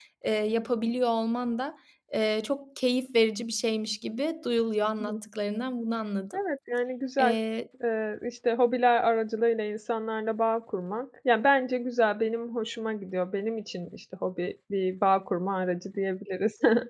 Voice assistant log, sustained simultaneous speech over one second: none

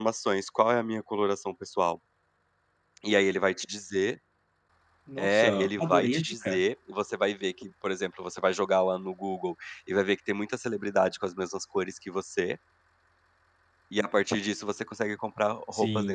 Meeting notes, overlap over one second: present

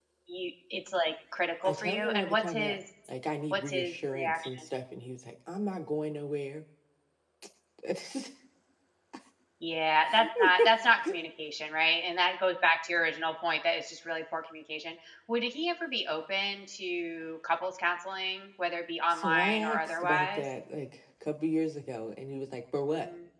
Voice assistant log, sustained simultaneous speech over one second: present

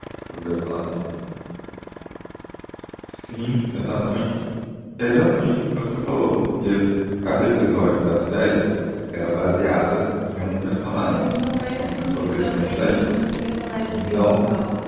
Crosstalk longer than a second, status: present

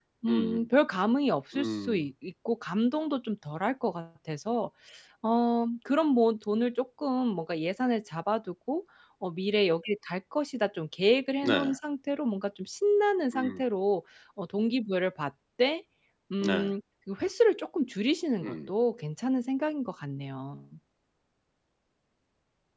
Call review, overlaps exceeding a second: none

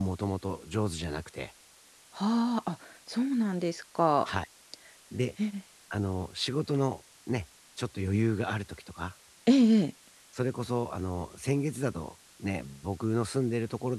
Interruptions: none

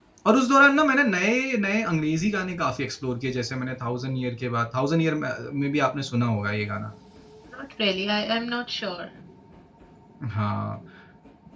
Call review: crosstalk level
none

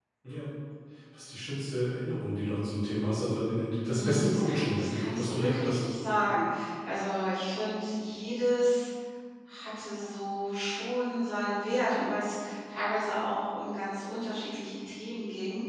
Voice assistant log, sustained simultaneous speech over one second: present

